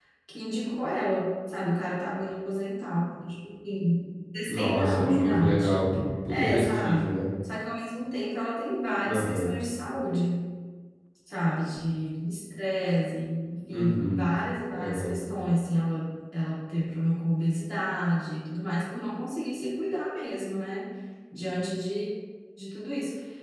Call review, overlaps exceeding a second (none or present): present